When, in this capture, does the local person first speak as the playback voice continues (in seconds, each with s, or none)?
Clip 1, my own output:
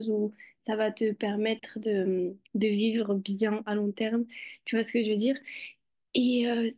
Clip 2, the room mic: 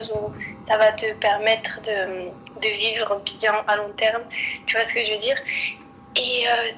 none